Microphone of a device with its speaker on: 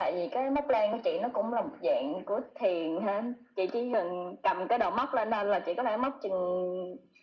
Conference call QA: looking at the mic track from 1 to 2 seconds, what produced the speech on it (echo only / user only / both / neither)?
echo only